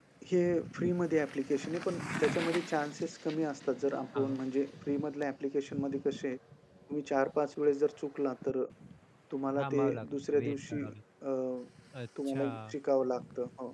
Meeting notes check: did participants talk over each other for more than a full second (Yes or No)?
Yes